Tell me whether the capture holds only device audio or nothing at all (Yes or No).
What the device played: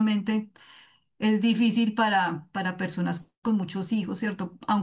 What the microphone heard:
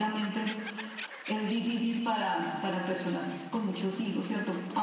Yes